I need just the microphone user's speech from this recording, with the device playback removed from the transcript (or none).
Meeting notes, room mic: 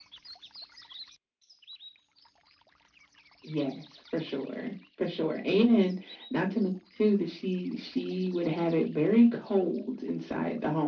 none